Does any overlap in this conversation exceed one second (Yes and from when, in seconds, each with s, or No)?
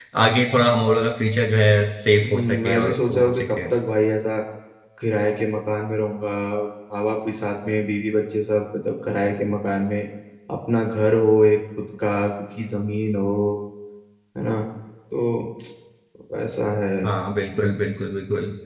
Yes, from 2.2 s